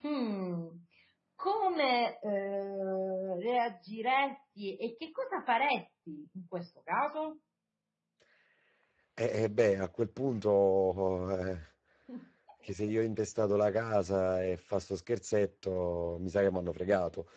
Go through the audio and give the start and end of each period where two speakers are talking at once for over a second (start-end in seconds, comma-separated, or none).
none